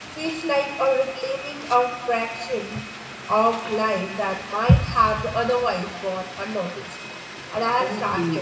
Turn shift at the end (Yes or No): Yes